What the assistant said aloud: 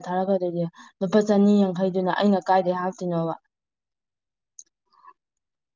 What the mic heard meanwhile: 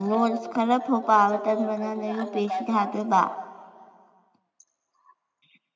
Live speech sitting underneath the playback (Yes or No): No